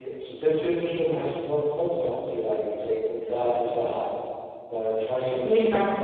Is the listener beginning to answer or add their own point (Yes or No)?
Yes